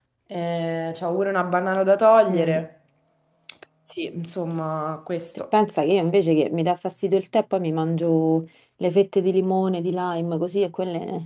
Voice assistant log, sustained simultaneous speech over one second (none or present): none